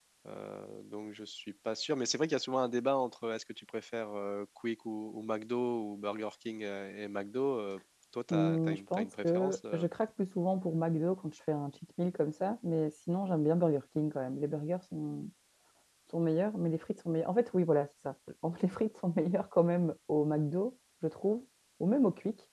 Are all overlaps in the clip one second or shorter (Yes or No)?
No